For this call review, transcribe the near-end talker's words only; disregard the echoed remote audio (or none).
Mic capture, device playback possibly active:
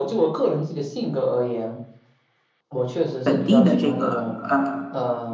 本地的这个呃